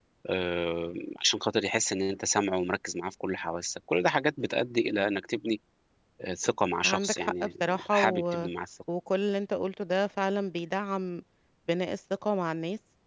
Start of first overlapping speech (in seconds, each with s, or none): 6.8 s